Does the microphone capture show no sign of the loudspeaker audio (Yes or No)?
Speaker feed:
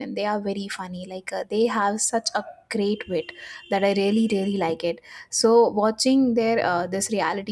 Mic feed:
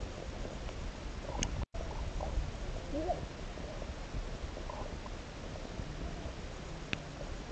Yes